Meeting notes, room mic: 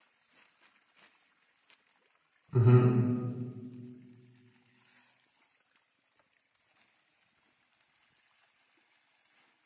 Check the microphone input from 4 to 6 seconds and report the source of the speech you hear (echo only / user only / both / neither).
neither